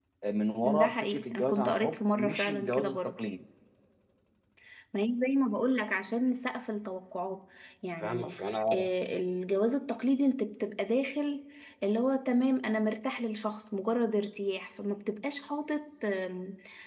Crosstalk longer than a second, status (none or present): present